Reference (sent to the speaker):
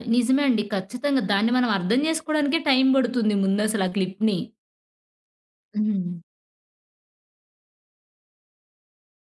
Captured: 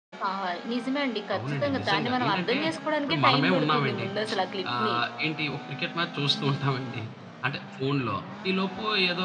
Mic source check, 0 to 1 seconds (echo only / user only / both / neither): echo only